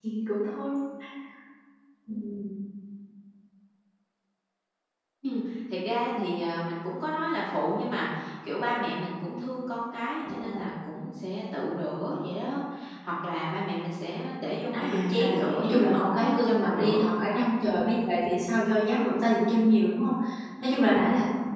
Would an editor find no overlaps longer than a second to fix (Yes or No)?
No